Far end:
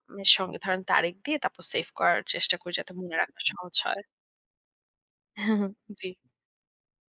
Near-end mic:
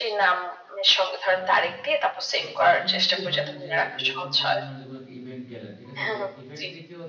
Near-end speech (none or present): present